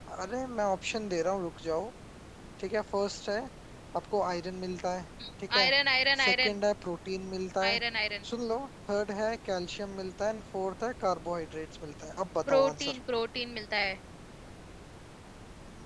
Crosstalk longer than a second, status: none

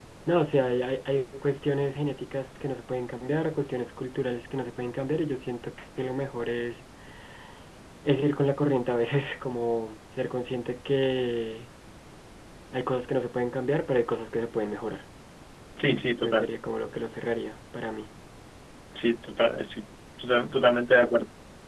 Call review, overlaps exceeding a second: none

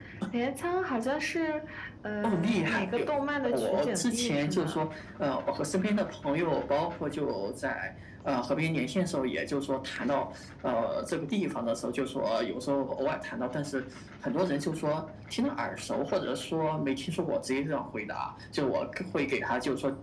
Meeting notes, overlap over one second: present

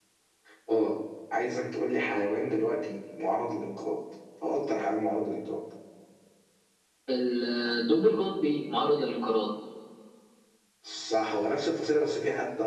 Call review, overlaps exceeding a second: none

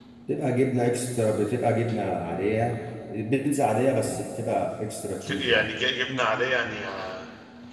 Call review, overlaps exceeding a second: none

